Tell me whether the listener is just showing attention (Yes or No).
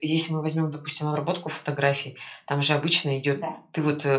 Yes